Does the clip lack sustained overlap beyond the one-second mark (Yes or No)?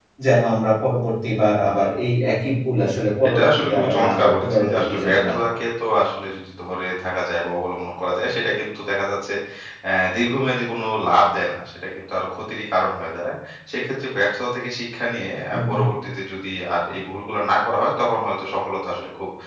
No